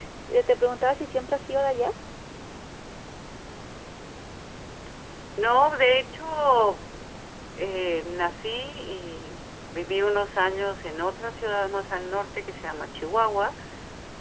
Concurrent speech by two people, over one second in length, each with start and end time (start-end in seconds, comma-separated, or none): none